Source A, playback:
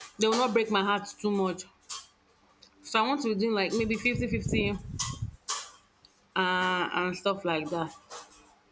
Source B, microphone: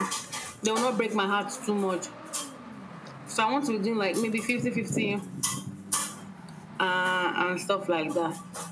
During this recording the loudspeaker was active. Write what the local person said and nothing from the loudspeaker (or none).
none